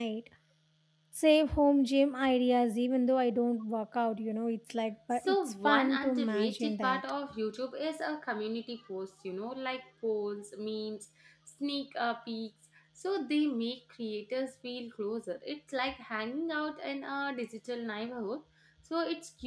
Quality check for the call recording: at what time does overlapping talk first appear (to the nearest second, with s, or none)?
5 s